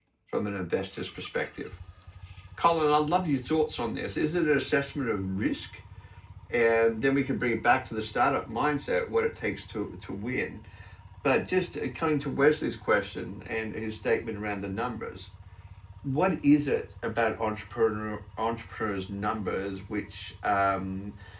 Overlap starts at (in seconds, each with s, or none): none